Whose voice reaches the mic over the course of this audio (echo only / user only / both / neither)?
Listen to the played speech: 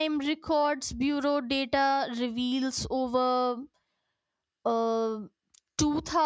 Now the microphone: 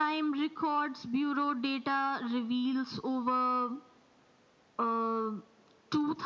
echo only